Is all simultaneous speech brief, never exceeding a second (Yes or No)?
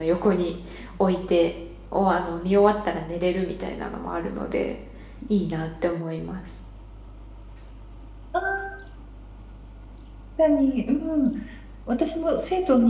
Yes